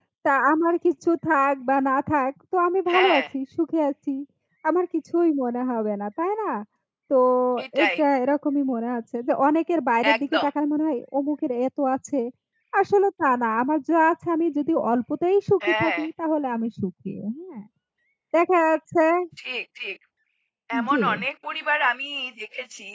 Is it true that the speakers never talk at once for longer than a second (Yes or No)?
Yes